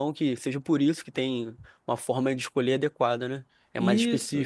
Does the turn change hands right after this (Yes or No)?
Yes